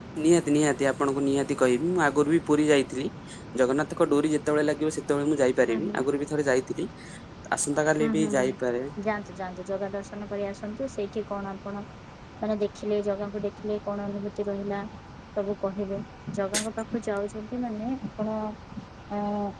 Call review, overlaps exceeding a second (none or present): none